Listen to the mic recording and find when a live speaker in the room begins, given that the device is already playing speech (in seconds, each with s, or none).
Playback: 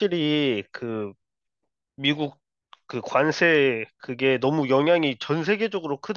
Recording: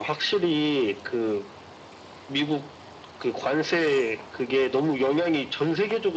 none